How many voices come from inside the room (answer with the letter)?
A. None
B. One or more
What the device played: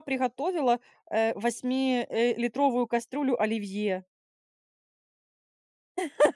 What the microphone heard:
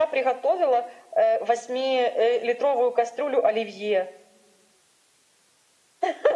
A